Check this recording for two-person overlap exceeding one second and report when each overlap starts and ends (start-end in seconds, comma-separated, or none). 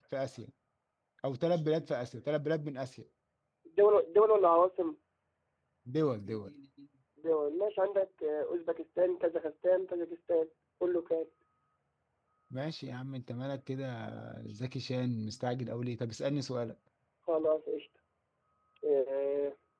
none